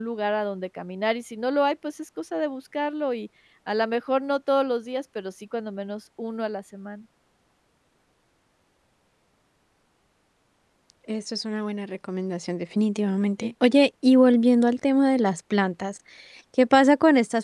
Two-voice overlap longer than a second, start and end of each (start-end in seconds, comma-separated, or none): none